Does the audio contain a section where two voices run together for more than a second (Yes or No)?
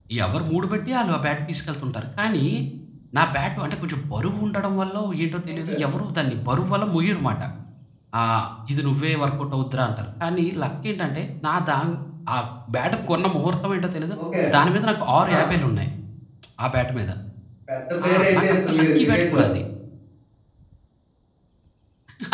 Yes